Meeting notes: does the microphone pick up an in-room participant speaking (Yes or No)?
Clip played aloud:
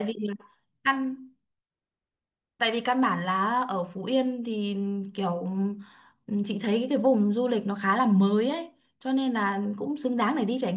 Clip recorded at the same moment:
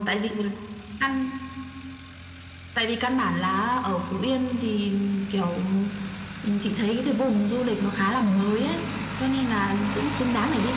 No